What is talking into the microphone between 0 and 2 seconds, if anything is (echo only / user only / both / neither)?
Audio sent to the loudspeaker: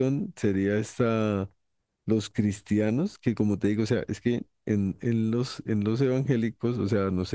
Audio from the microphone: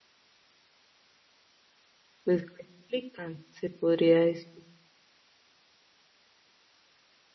neither